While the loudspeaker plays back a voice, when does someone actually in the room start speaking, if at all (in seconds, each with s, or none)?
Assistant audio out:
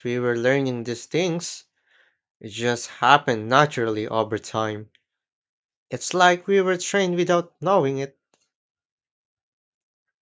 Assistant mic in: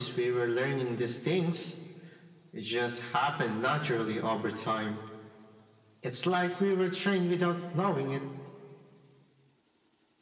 none